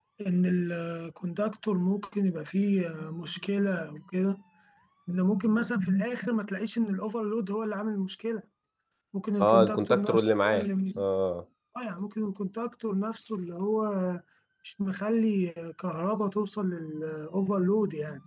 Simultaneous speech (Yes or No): Yes